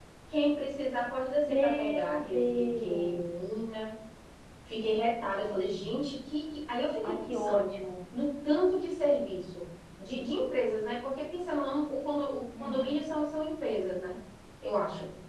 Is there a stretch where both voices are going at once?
Yes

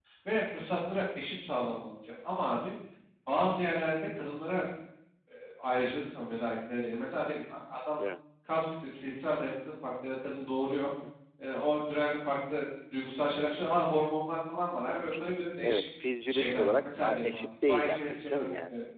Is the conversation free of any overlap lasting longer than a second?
No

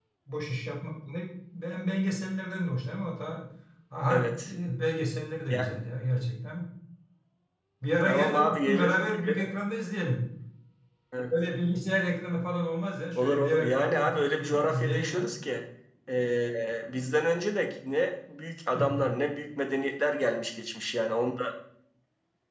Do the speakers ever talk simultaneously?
Yes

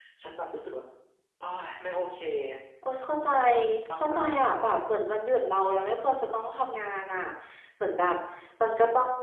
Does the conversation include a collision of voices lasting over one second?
No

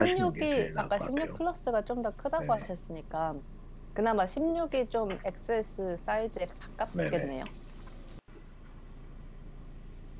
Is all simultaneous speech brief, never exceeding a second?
No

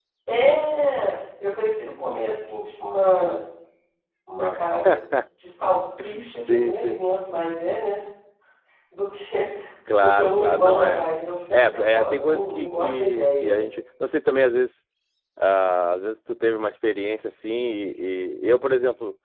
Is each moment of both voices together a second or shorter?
No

